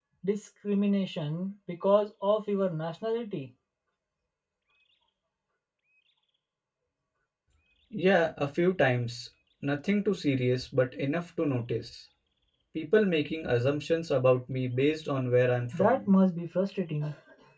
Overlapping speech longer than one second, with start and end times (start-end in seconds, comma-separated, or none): none